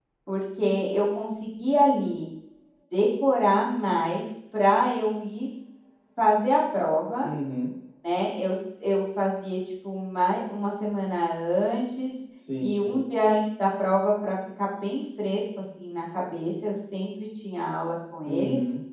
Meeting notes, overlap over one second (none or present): none